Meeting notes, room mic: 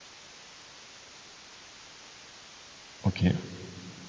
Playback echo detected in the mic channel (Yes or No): No